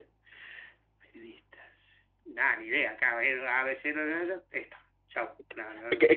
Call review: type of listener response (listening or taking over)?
taking over